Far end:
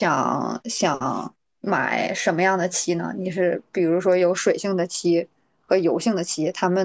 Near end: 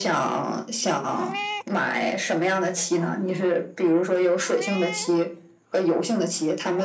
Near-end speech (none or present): none